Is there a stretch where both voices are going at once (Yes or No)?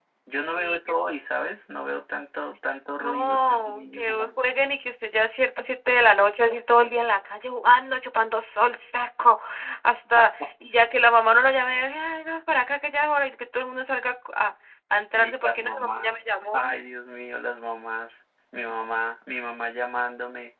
Yes